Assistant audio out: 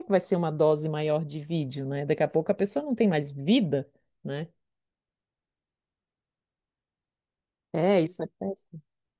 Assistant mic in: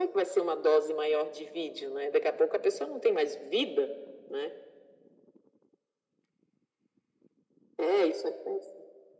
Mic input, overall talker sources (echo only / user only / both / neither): echo only